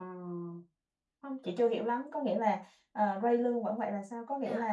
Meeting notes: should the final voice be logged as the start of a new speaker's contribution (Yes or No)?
Yes